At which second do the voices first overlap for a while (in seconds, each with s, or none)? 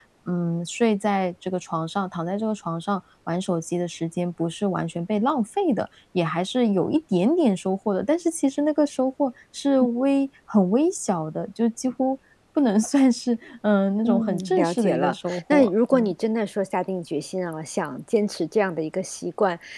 14.0 s